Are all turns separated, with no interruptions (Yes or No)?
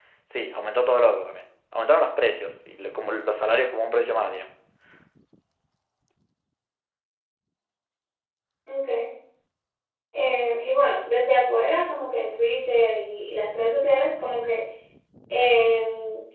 Yes